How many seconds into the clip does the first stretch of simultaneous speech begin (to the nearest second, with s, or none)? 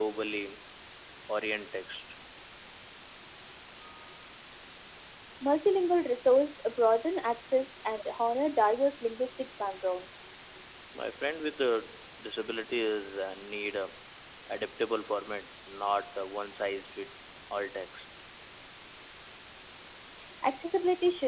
none